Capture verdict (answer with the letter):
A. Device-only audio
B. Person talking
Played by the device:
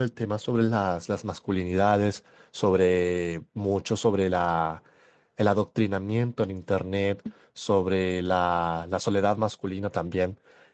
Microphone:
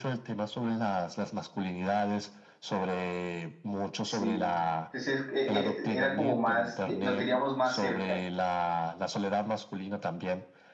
B